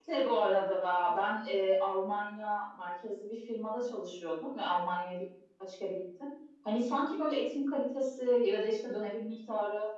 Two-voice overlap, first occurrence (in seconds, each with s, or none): none